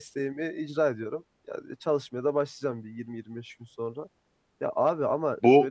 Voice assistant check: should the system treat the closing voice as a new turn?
No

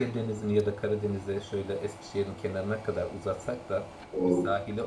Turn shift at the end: No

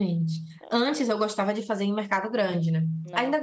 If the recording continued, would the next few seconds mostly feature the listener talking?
No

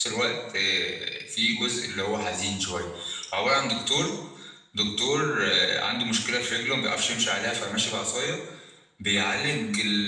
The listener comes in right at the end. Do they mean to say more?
No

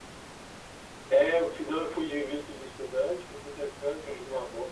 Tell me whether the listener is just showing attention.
Yes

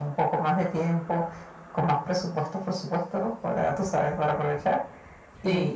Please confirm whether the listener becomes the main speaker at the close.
No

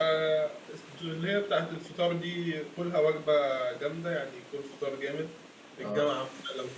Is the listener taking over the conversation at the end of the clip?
No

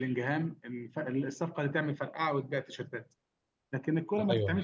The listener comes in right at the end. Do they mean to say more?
No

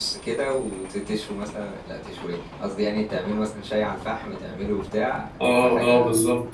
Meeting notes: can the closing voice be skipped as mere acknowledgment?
No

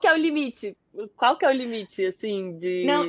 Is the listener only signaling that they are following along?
No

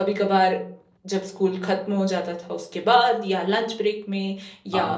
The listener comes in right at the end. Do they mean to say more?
No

